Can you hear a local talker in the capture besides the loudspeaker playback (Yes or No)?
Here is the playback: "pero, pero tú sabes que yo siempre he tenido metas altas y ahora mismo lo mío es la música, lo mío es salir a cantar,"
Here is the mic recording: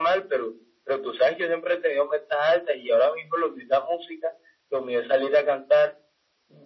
No